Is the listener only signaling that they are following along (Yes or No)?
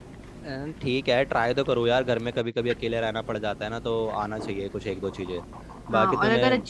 No